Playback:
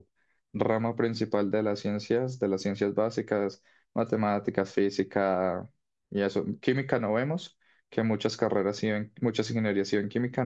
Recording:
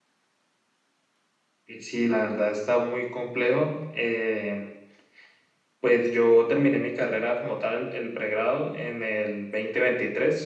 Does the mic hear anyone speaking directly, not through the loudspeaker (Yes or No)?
Yes